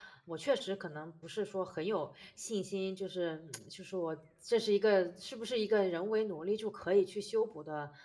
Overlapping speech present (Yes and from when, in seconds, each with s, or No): No